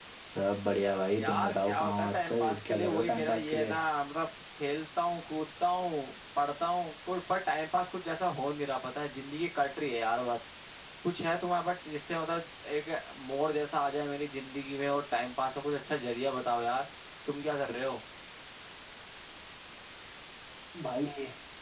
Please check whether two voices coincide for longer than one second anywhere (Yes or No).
Yes